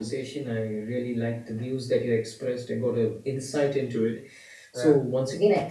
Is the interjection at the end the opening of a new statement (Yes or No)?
No